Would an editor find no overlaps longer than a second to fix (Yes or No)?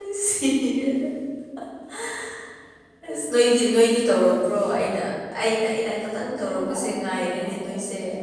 No